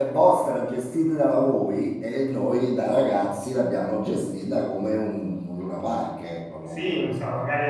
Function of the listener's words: taking over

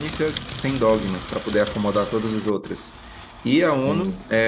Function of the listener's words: listening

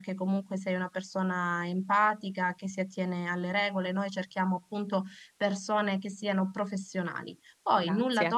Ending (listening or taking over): listening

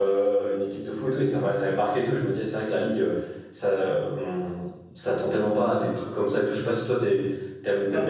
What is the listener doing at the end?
listening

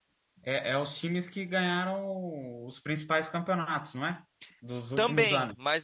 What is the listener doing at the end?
taking over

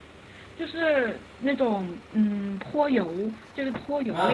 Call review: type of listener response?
taking over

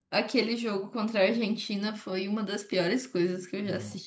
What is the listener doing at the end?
listening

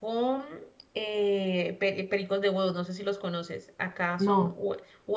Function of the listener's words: listening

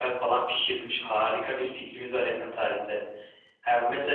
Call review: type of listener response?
listening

